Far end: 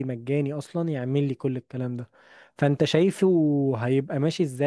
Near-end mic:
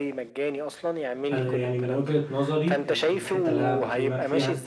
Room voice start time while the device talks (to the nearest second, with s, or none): 1 s